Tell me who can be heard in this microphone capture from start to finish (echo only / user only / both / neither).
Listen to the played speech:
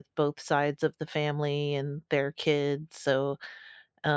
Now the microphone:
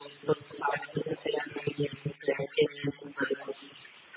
echo only